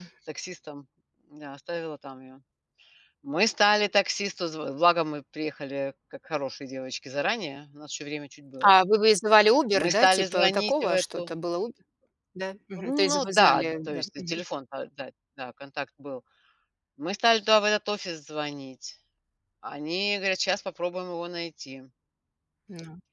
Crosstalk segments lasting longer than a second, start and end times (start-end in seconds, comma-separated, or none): 9.7-11.3, 12.8-14.4